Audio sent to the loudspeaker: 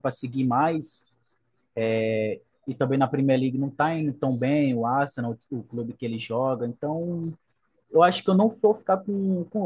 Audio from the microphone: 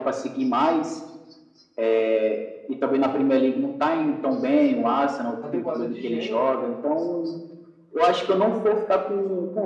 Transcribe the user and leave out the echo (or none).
uma temporada de gênio, né?